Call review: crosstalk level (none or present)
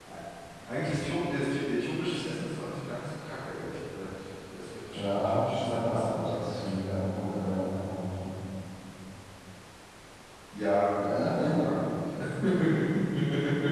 present